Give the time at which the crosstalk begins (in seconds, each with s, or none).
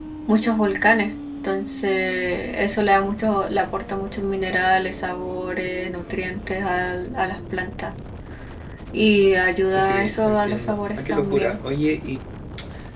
9.7 s